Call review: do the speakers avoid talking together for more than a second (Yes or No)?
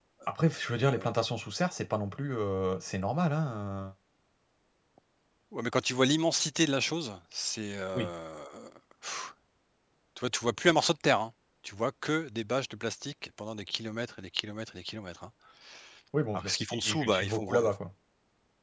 No